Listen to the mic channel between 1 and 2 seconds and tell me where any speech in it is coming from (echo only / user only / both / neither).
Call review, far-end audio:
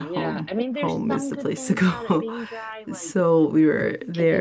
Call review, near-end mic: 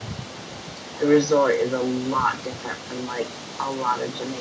user only